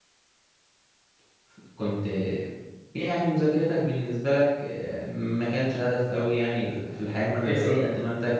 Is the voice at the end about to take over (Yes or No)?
No